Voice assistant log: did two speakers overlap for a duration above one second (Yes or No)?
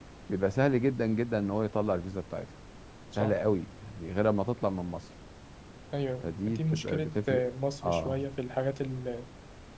Yes